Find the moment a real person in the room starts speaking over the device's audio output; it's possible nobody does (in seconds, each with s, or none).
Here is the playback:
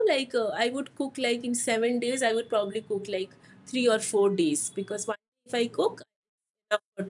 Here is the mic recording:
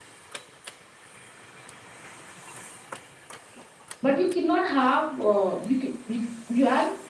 4.0 s